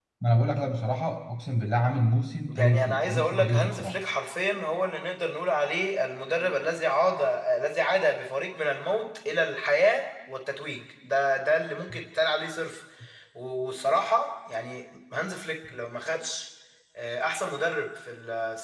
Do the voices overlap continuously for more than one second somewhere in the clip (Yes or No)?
Yes